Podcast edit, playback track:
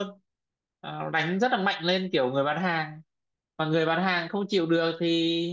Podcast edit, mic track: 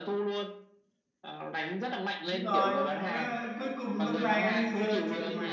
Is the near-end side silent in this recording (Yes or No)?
No